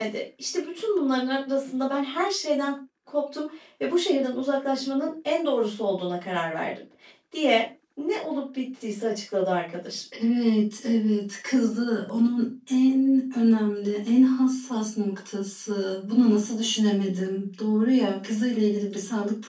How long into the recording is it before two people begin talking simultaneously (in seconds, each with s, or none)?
none